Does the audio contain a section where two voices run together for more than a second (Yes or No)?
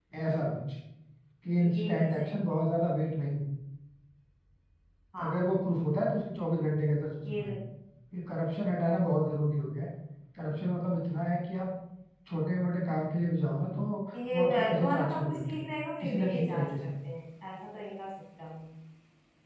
Yes